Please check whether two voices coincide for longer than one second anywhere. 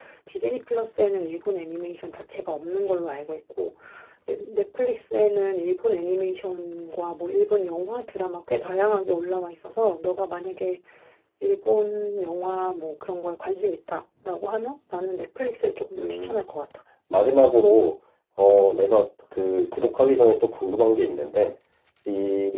No

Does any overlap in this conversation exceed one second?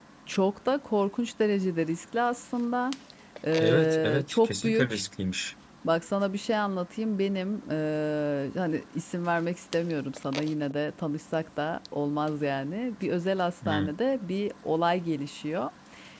Yes, from 3.6 s

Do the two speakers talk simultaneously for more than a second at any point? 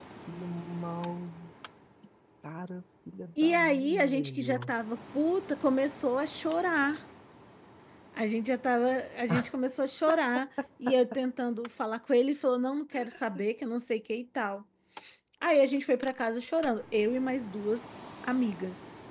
Yes, from 3.4 s

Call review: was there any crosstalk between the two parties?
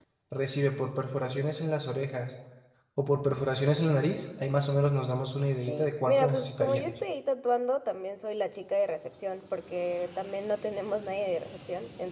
Yes, from 5.6 s

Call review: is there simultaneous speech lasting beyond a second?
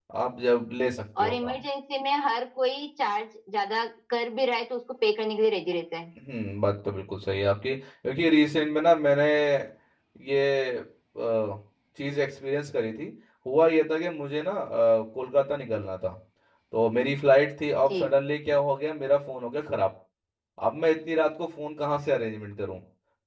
No

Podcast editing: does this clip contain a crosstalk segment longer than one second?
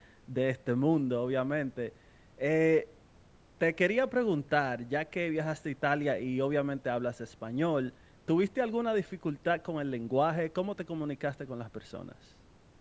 No

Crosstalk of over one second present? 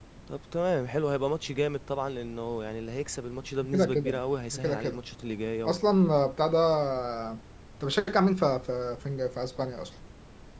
No

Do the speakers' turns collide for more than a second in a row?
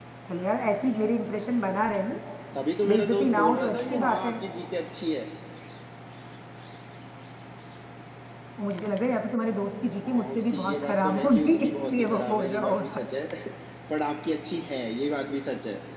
Yes, from 2.9 s

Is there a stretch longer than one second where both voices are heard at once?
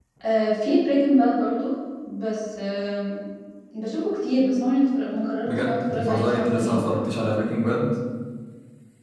Yes, from 5.4 s

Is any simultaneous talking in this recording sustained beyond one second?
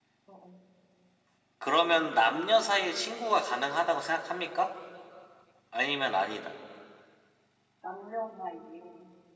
No

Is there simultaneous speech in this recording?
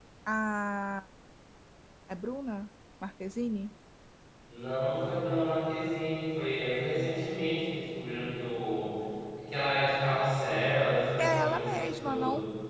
Yes, from 11.2 s

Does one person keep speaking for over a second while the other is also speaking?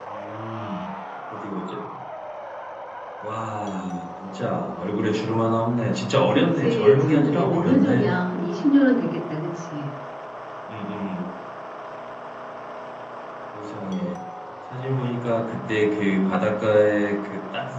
Yes, from 6.3 s

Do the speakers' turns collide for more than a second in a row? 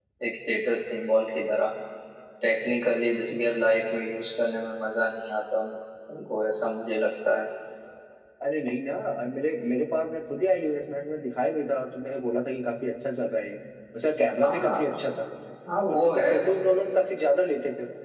No

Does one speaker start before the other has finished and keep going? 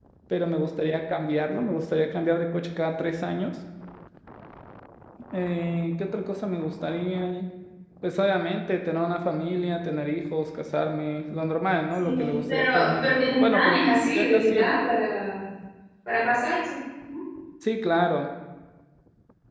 Yes, from 12.0 s

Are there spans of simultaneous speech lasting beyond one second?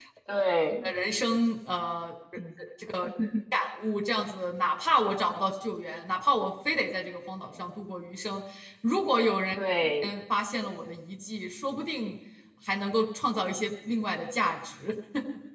No

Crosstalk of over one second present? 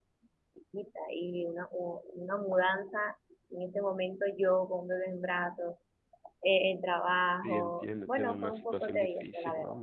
Yes, from 7.4 s

